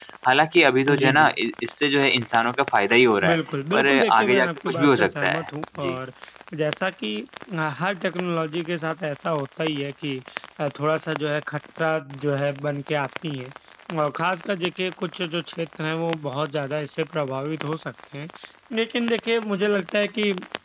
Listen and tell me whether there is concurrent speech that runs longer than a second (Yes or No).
Yes